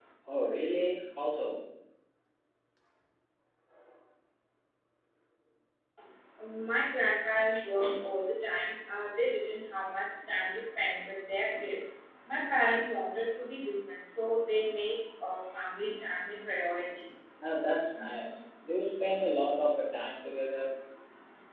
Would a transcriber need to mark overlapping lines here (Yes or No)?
No